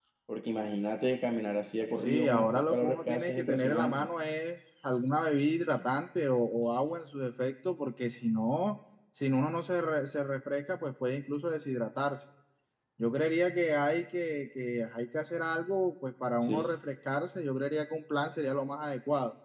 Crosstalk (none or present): present